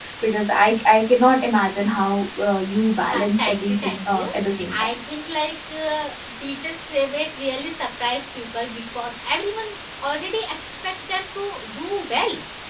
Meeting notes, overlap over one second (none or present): present